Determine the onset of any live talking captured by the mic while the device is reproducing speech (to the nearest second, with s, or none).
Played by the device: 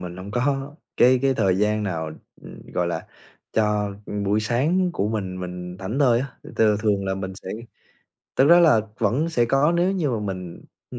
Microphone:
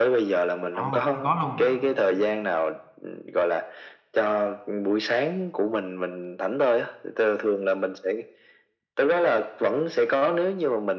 1 s